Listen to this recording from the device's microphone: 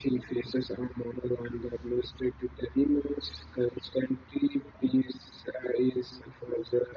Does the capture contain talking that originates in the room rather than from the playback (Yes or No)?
No